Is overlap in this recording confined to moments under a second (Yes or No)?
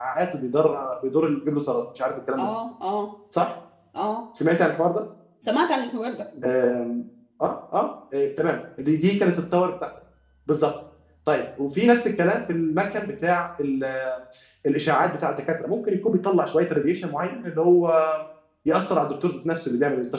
Yes